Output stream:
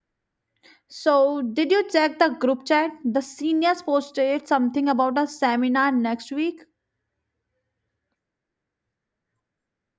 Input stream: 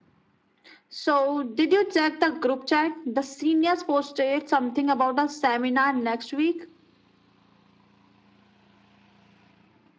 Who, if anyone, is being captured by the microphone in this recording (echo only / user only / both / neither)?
echo only